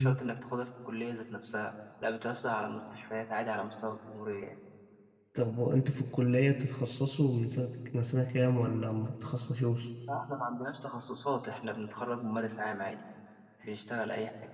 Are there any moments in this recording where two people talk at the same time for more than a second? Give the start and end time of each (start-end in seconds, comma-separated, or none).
none